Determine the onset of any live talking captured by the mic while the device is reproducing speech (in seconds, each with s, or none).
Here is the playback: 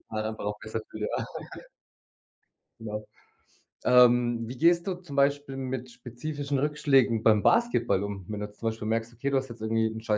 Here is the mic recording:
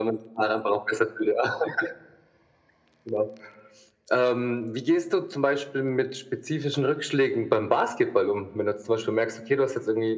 none